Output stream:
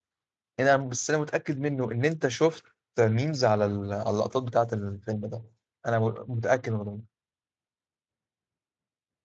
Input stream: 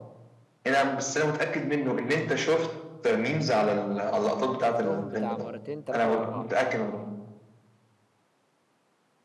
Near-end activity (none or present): present